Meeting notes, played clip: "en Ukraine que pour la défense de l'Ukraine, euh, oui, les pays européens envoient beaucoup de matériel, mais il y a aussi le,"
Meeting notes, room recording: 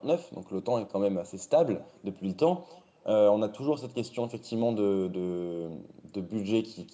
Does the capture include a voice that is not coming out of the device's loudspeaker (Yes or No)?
Yes